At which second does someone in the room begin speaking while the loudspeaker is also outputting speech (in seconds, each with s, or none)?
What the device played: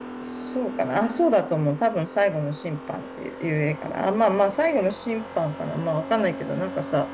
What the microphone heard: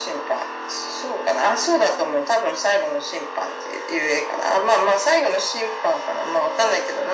none